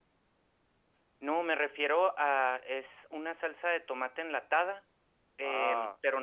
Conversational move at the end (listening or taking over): listening